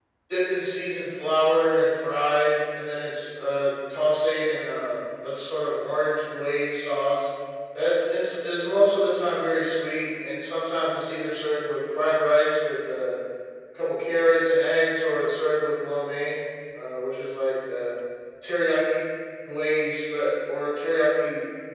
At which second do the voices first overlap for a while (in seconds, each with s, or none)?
none